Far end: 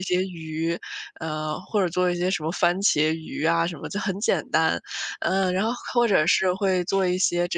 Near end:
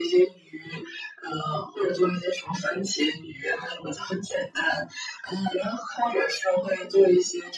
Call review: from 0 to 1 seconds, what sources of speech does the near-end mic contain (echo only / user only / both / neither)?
echo only